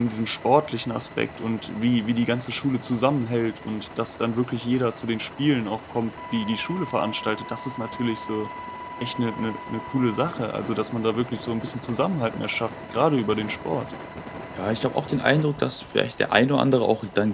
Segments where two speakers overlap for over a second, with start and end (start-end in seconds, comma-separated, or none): none